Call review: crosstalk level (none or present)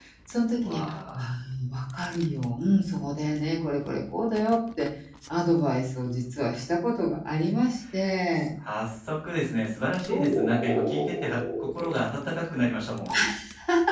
present